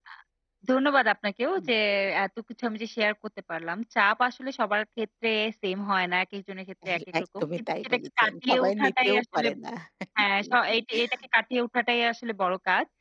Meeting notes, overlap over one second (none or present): present